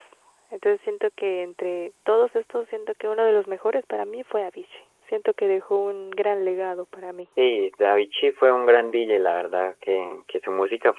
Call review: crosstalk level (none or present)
none